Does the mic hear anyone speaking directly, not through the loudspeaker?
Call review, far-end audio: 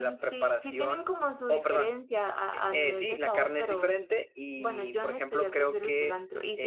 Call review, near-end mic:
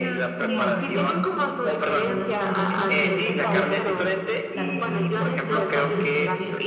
Yes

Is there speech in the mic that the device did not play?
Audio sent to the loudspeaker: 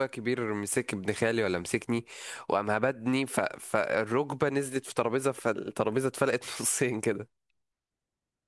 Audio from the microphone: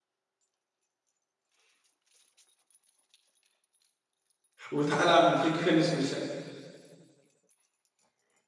Yes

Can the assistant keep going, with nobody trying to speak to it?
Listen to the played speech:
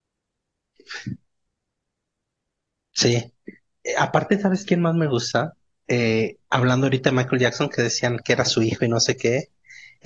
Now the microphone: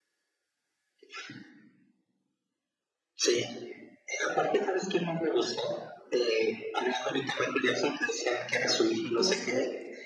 No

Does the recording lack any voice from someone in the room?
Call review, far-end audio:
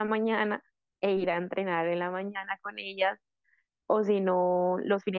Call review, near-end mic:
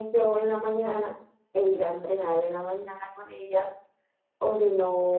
Yes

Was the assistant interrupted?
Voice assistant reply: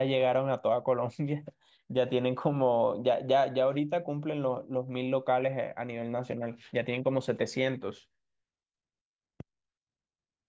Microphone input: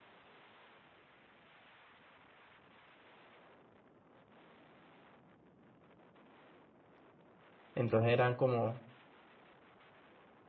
Yes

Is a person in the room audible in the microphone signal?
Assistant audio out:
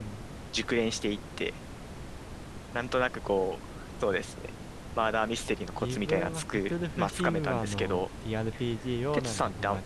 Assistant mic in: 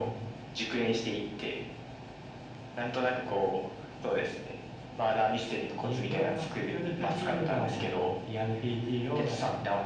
No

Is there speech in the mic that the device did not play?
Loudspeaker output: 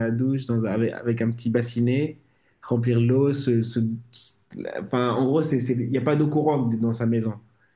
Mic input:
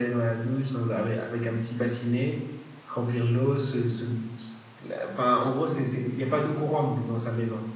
No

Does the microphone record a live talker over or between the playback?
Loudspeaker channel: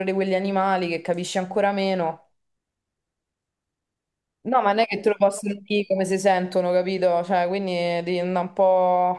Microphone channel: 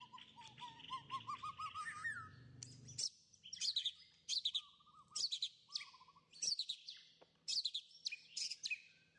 No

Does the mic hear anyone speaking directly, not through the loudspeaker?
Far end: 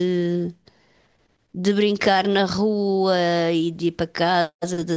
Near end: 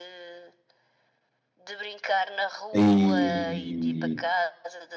Yes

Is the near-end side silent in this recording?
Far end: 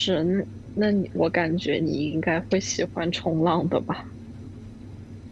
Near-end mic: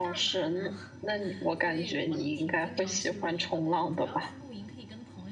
No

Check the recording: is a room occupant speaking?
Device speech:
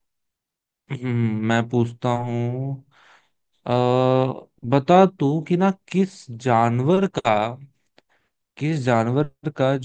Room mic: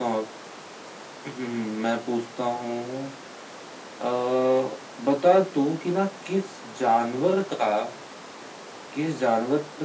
No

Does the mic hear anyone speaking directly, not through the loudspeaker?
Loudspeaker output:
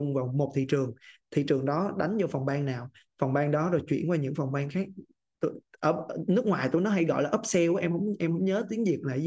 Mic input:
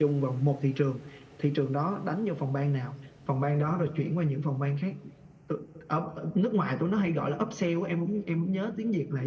No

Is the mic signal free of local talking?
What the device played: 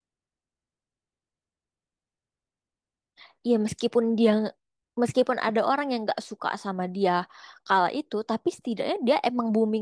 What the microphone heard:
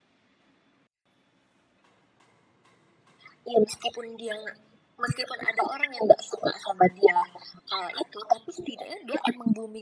Yes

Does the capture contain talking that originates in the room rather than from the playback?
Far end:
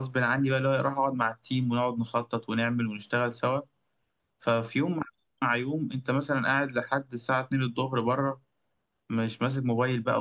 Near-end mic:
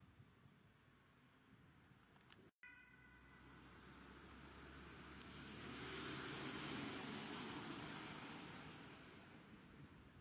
No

